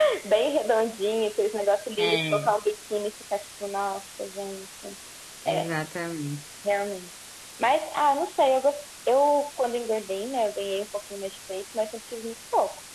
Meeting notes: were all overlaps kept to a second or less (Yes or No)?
Yes